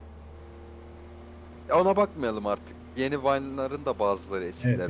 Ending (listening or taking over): taking over